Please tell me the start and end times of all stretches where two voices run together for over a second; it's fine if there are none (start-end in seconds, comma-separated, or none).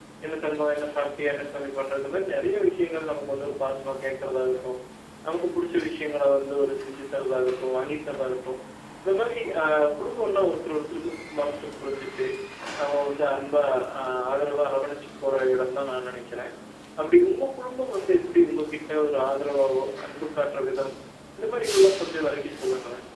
none